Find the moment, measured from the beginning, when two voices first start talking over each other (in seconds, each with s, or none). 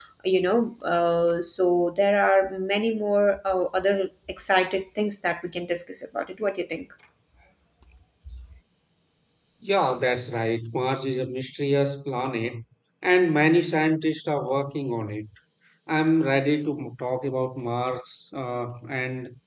none